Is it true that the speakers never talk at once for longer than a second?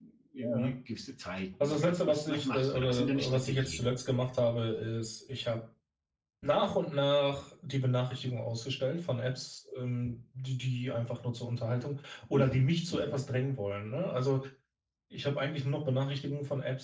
No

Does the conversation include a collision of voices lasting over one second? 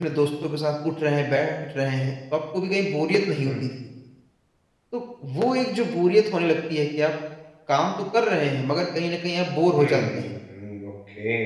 No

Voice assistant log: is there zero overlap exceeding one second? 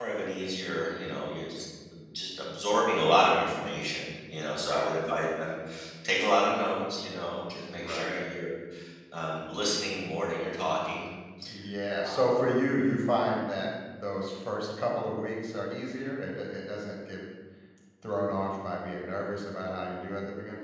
Yes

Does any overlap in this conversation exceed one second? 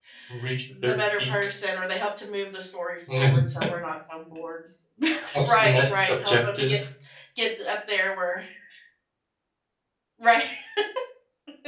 Yes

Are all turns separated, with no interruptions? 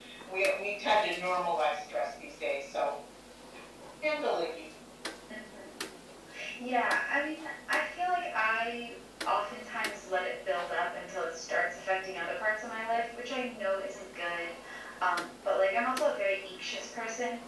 Yes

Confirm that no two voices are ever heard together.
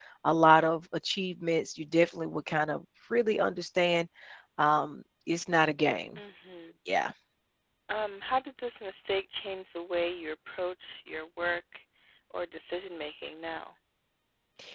Yes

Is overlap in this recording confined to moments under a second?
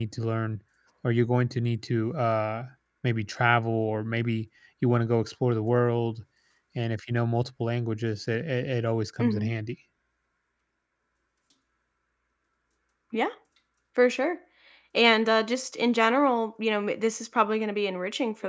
Yes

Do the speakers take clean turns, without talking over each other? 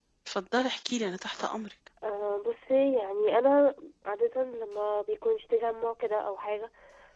Yes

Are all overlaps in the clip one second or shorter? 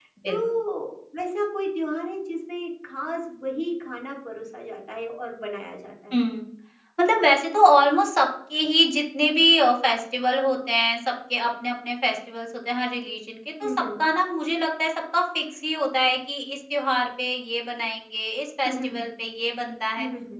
Yes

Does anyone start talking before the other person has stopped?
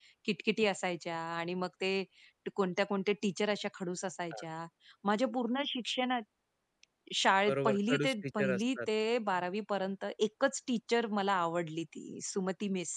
Yes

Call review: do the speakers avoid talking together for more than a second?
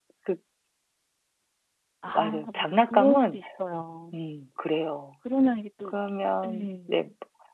No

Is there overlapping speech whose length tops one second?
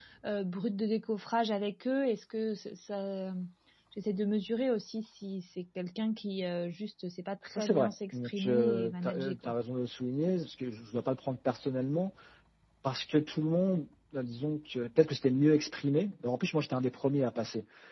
Yes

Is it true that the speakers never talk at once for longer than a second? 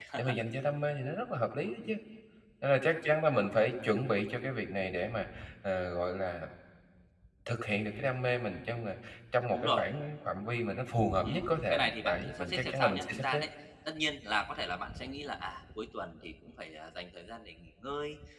No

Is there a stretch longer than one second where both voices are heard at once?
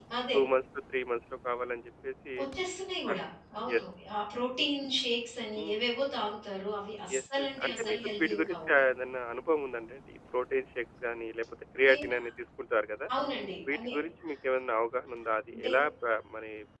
Yes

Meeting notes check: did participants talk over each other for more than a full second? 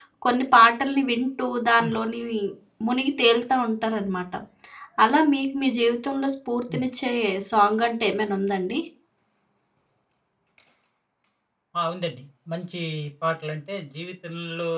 No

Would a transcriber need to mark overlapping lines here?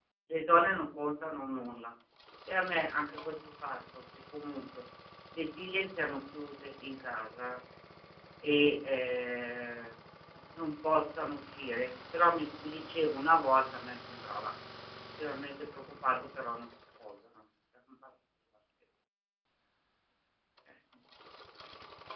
No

